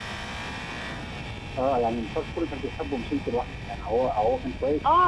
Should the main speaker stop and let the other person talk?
Yes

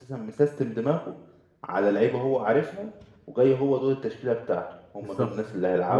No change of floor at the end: No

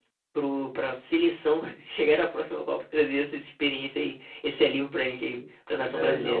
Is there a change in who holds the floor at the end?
Yes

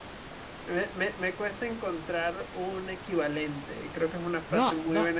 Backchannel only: No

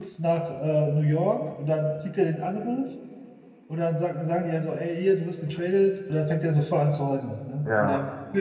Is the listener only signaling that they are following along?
Yes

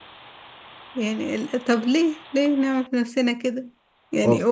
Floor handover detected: No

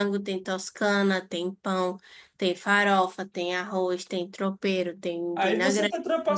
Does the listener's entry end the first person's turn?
Yes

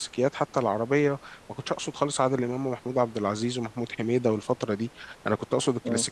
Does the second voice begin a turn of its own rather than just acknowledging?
No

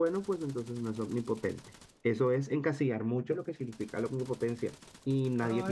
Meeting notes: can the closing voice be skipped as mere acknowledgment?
No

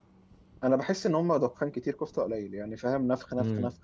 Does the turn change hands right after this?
No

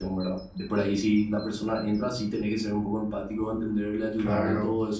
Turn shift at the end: No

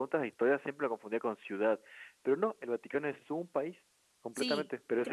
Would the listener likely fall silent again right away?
No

